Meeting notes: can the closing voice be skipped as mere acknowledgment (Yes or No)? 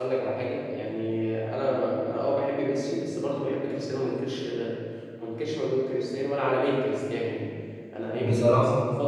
Yes